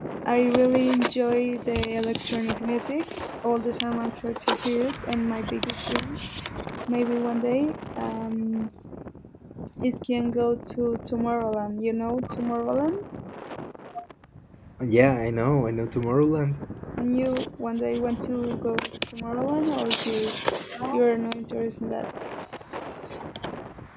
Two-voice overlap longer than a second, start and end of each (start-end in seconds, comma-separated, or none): none